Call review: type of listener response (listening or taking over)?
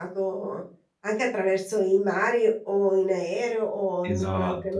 taking over